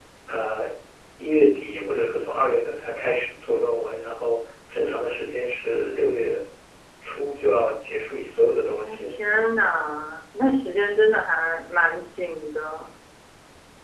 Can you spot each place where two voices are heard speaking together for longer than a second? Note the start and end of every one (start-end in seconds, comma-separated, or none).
none